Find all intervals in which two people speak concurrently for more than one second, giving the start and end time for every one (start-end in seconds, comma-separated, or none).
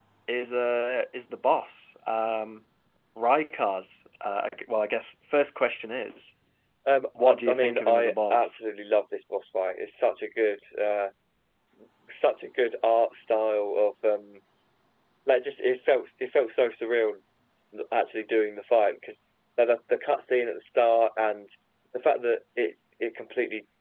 7.2-8.6